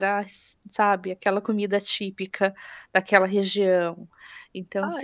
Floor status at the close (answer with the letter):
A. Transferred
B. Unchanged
B